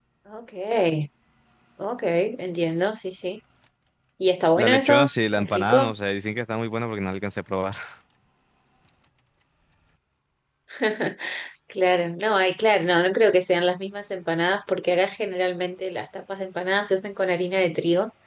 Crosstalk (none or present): present